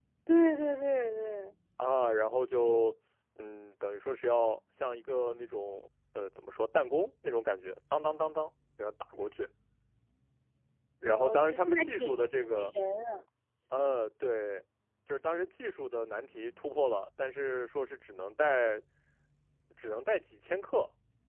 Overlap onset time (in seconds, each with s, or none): 11.1 s